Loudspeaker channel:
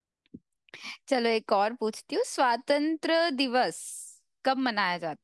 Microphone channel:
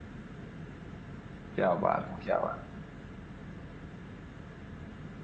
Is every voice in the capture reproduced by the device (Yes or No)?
No